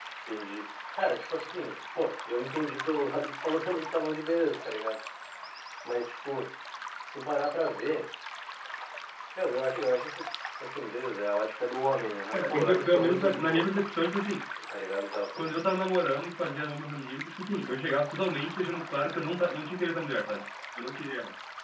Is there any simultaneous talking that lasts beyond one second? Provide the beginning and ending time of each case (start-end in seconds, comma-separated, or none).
12.3-13.7